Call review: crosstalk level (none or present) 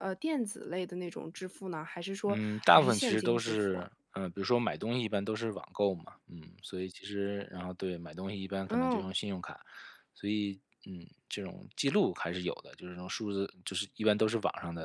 present